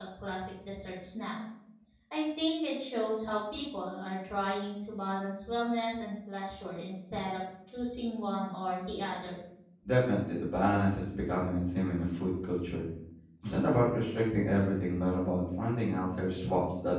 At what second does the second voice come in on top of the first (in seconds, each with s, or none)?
none